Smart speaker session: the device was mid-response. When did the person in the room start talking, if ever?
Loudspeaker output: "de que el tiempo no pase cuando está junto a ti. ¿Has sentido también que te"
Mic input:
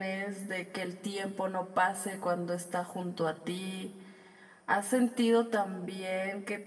none

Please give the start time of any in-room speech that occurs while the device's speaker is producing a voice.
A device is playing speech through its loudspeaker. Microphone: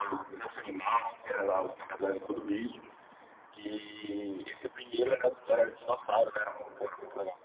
none

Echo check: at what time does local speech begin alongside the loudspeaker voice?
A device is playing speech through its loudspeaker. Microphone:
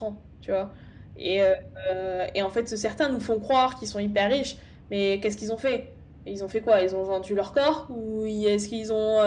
none

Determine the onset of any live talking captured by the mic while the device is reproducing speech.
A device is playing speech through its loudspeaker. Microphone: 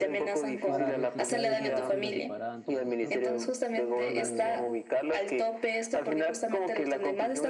1 s

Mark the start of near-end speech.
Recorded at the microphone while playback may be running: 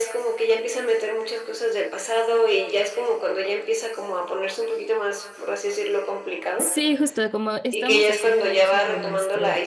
7 s

